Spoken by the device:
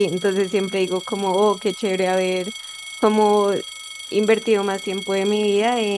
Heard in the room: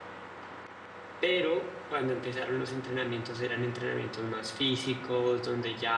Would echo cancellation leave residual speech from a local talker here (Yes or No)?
Yes